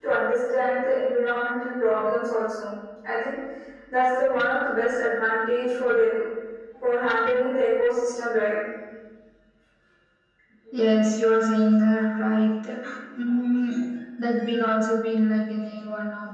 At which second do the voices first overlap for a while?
none

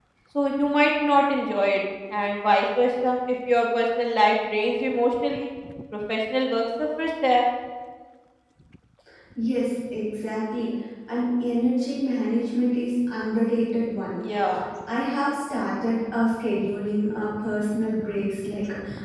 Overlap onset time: none

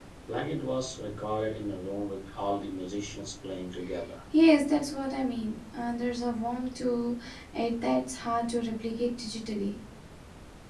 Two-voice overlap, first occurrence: none

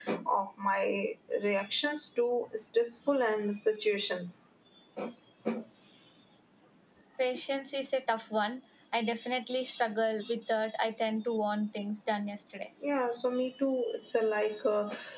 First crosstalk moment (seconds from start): none

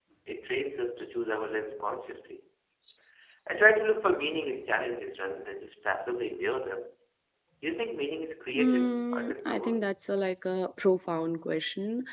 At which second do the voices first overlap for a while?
8.5 s

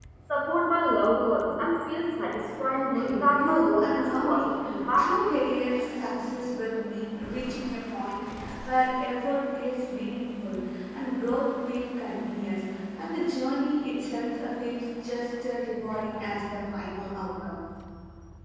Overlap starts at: 2.7 s

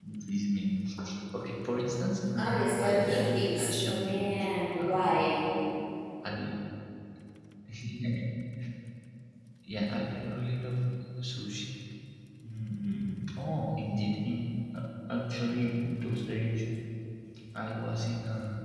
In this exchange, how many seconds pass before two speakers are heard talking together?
2.4 s

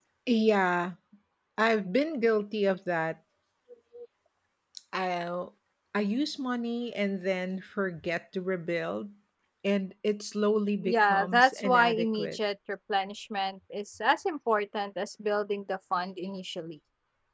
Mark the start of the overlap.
10.8 s

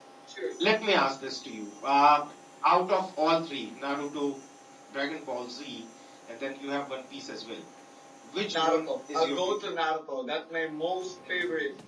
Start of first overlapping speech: 8.5 s

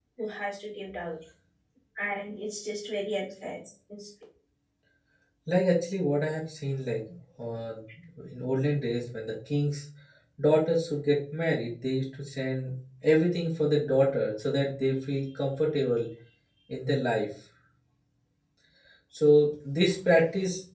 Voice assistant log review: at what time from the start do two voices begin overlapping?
none

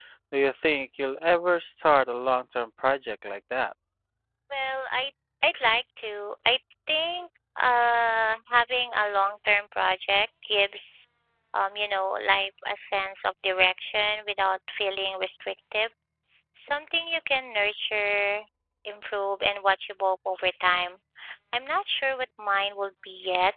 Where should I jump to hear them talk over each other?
none

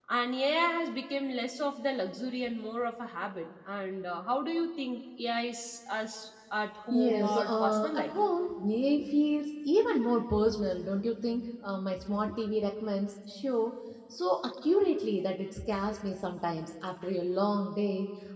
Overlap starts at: 6.9 s

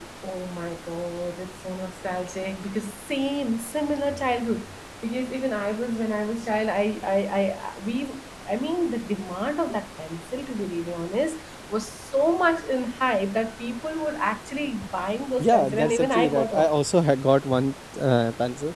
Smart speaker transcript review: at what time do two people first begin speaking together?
15.4 s

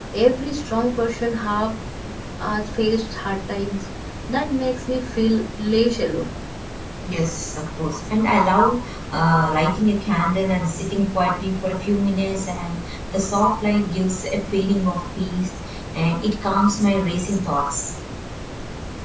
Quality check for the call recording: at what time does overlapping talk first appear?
none

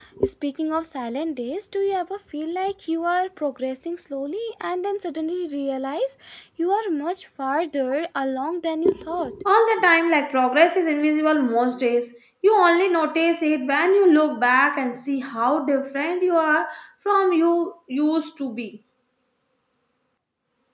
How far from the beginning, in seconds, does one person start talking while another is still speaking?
none

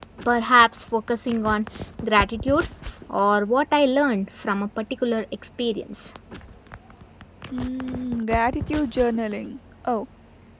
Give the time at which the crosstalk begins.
none

